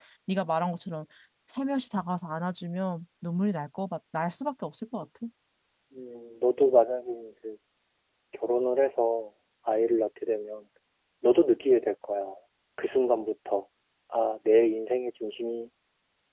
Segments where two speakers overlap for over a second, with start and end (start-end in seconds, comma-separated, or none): none